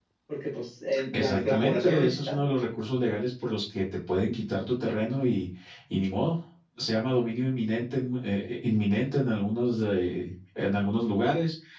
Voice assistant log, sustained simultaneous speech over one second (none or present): present